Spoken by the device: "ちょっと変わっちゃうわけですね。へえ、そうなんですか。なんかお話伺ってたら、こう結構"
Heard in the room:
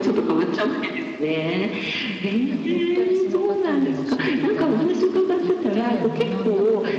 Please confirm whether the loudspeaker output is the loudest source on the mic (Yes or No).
Yes